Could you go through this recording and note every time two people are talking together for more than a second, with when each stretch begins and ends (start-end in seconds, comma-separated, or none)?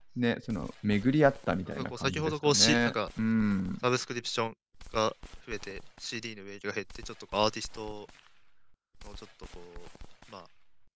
1.7-2.9